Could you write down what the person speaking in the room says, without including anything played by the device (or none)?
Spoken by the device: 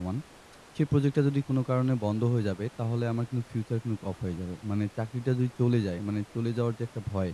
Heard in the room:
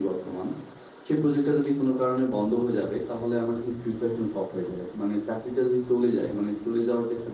none